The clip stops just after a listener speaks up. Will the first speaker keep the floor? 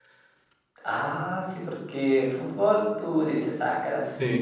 Yes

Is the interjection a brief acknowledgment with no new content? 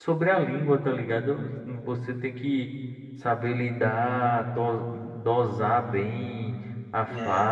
Yes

